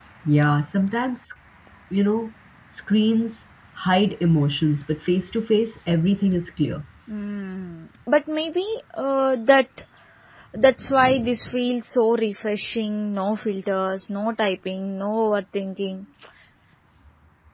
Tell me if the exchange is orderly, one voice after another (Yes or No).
Yes